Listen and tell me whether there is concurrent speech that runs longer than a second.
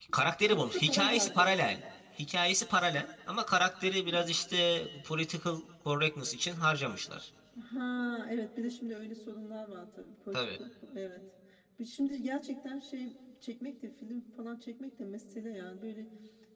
Yes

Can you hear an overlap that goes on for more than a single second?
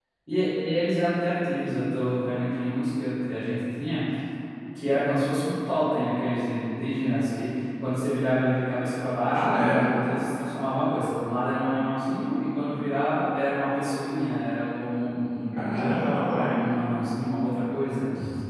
No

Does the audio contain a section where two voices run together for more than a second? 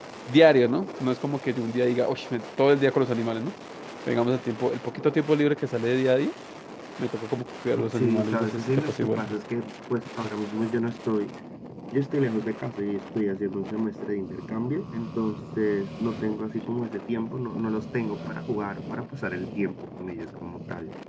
Yes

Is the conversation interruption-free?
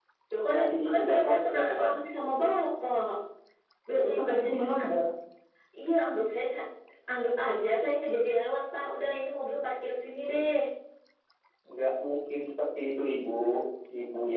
No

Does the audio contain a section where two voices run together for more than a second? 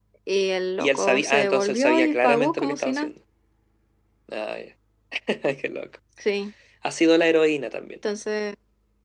Yes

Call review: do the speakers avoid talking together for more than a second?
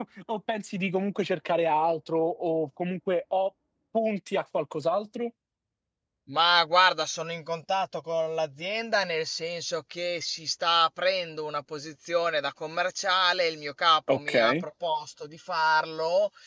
Yes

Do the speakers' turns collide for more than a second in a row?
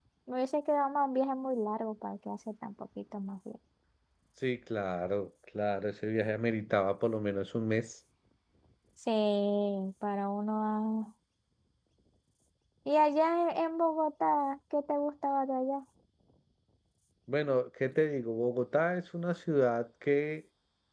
No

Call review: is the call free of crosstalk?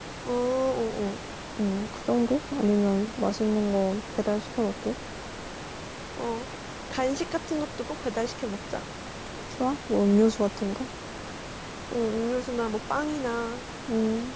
Yes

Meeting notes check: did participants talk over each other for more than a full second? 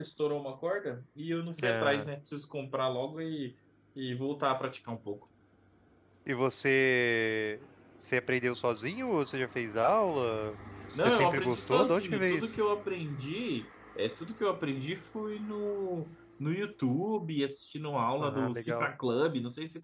Yes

